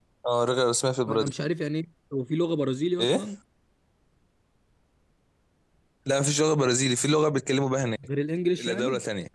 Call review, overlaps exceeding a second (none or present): none